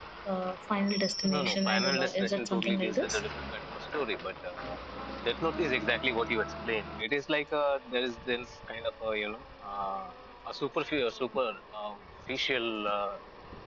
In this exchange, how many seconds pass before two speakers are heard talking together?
1.2 s

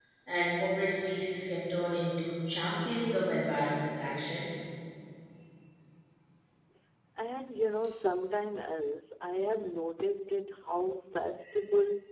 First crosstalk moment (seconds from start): none

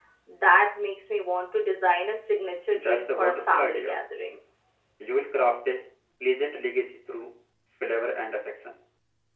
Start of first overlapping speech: 2.7 s

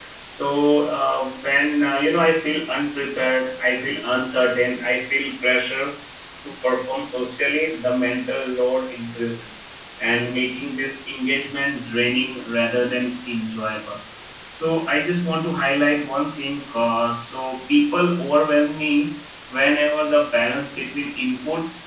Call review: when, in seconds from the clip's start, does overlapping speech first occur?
none

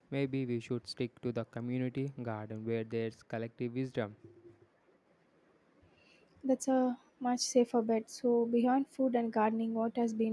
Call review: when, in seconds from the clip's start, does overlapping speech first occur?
none

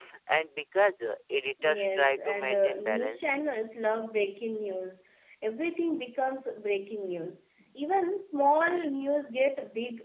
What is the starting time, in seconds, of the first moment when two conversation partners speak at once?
1.6 s

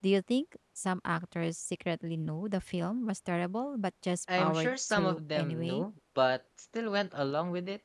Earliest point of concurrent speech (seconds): 4.3 s

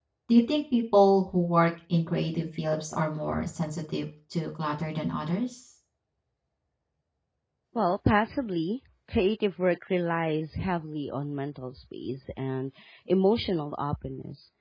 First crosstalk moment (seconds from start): none

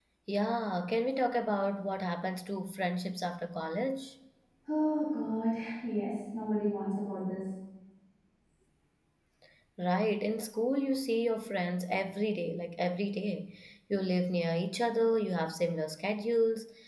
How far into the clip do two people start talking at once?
none

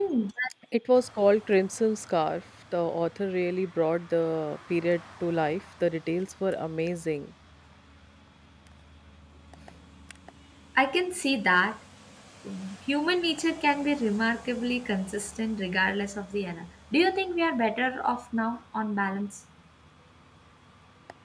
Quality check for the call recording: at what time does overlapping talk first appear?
none

